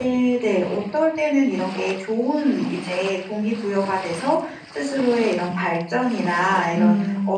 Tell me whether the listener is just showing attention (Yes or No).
Yes